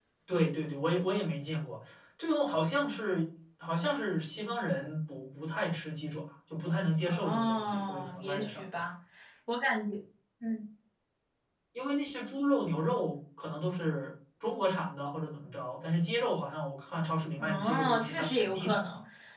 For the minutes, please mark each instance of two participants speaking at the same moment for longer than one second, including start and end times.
7.0-8.8, 17.4-18.8

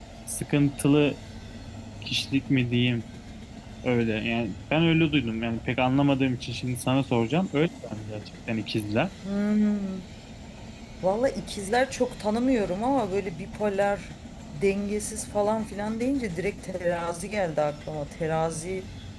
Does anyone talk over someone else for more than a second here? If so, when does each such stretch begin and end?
none

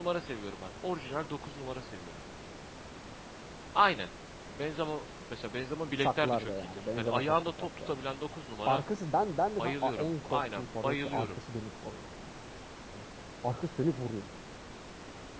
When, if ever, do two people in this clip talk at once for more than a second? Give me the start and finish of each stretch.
6.0-7.9, 9.6-11.4

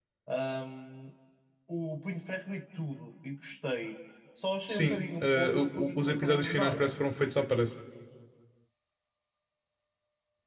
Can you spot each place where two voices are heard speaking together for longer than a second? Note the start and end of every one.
4.7-6.9

